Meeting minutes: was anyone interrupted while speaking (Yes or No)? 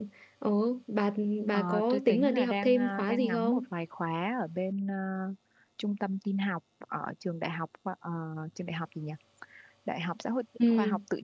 Yes